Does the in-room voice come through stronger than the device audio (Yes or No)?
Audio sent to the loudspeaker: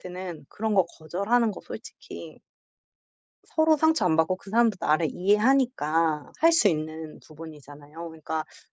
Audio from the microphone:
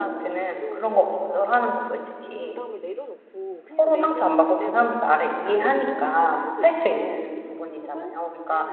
No